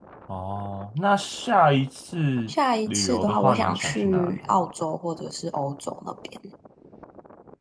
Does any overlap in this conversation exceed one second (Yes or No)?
Yes